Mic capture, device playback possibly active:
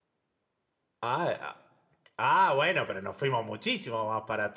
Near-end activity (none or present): present